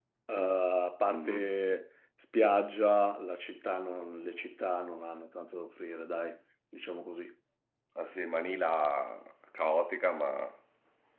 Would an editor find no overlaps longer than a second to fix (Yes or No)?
Yes